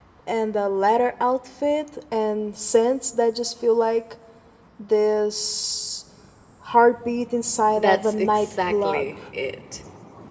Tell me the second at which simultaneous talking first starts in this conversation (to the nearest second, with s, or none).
8 s